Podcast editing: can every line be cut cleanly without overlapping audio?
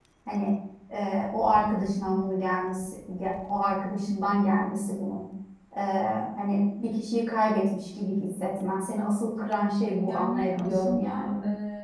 No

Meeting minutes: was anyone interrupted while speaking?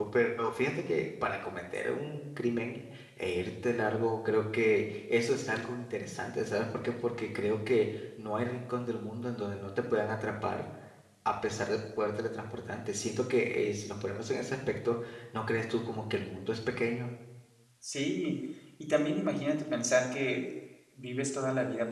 No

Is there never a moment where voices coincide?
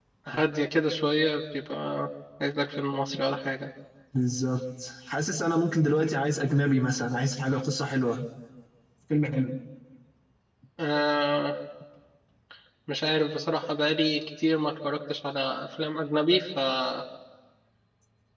Yes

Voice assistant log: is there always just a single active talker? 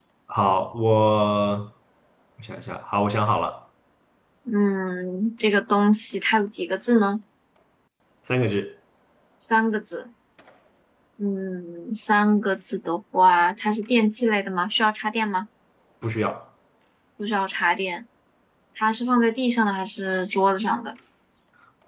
Yes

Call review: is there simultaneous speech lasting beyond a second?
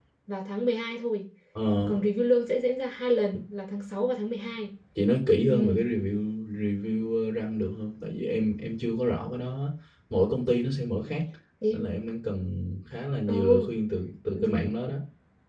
No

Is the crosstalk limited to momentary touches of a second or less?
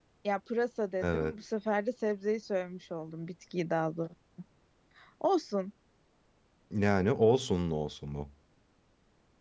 Yes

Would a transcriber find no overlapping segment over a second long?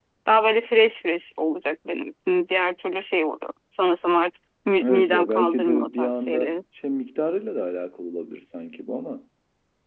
No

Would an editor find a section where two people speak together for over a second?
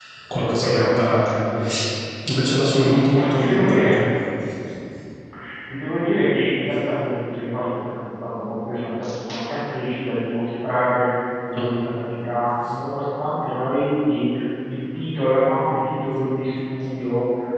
Yes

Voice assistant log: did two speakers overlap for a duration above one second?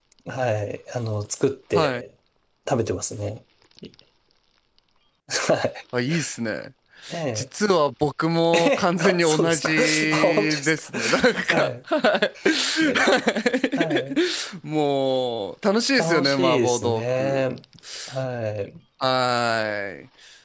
Yes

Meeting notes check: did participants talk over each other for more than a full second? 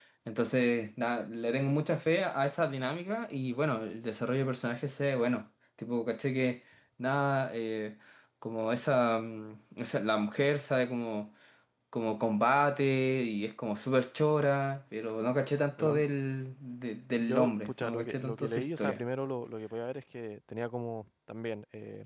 Yes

